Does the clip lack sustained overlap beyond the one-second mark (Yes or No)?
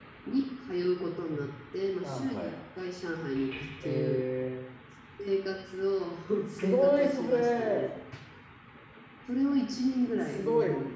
No